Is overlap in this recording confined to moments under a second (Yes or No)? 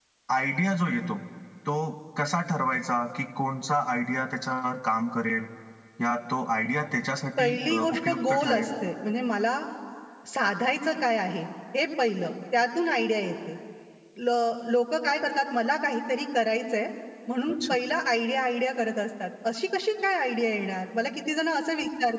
No